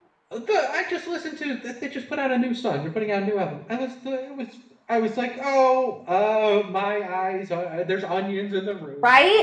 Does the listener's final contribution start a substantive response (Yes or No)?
Yes